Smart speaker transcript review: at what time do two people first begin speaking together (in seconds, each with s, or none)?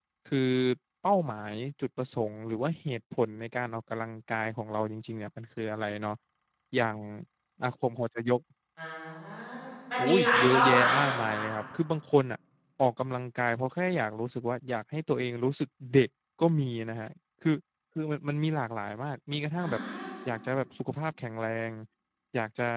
10.0 s